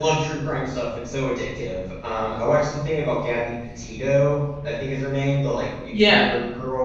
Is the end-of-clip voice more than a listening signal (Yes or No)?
No